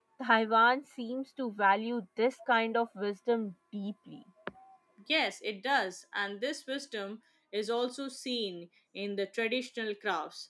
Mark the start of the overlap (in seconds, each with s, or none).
none